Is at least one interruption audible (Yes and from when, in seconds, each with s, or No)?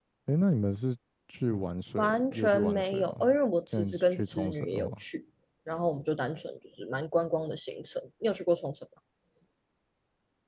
Yes, from 2.0 s